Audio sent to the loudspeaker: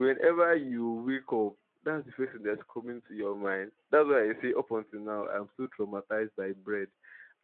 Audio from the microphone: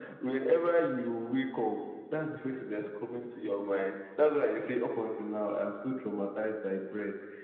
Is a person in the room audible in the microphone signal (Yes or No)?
No